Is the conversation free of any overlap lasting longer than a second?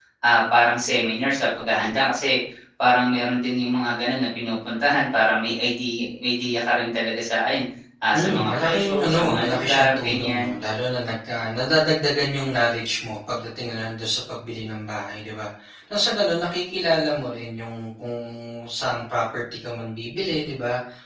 No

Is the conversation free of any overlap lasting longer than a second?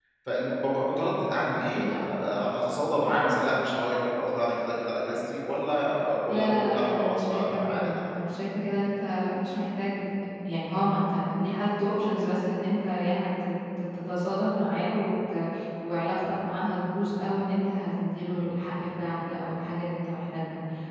No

